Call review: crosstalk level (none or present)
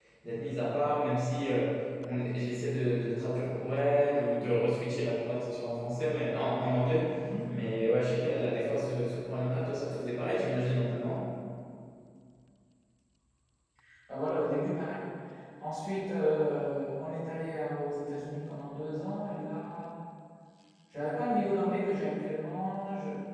none